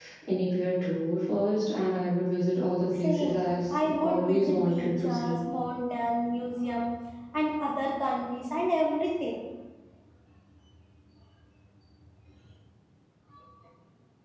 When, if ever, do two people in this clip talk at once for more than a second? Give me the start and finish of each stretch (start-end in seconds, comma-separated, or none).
3.0-5.4